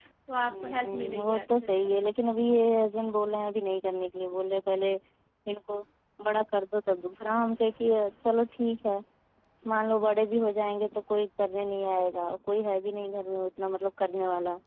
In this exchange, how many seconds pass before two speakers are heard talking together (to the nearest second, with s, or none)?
1 s